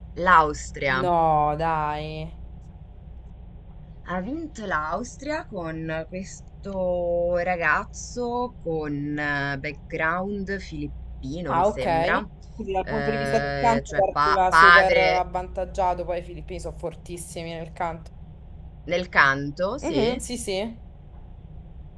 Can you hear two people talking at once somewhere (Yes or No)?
Yes